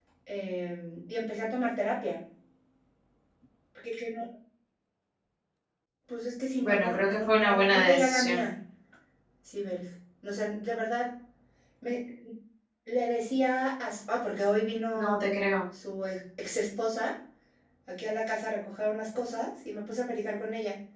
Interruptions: present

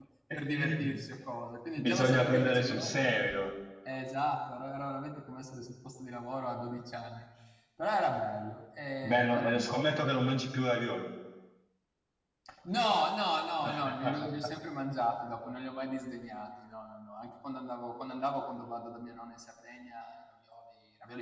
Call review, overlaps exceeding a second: present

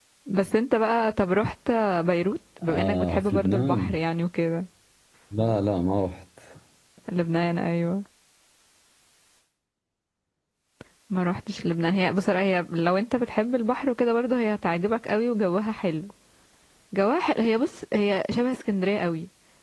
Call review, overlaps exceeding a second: present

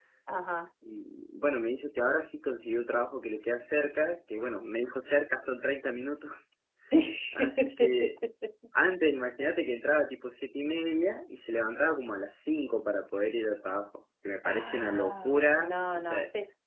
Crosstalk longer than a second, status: present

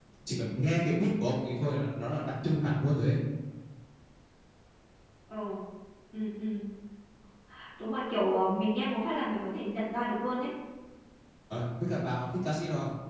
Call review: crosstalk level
none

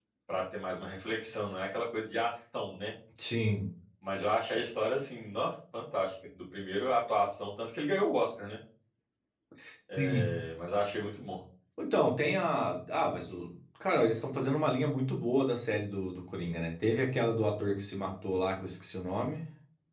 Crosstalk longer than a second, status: none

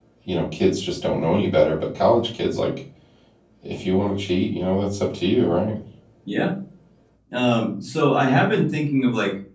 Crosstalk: none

